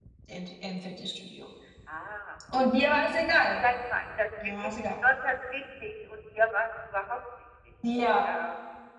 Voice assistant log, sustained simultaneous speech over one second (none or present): none